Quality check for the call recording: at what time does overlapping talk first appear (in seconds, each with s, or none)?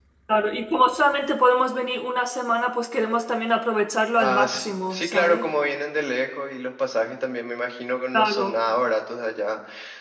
4.2 s